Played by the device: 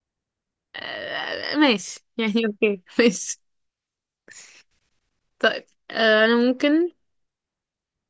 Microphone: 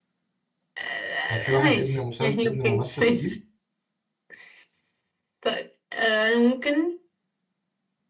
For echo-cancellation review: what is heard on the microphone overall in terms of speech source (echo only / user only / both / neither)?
both